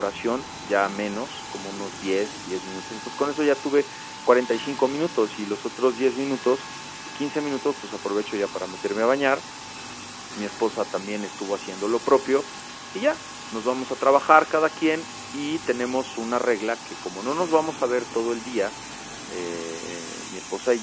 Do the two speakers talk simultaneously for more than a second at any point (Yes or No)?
No